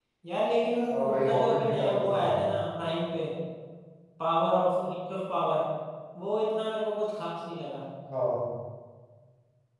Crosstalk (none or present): present